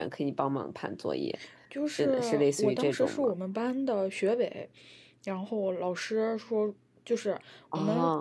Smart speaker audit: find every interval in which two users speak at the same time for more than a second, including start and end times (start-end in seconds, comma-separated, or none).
1.9-3.3